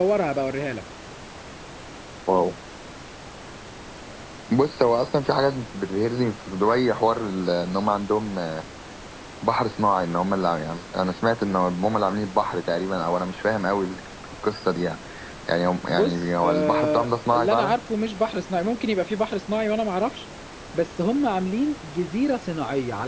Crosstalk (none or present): present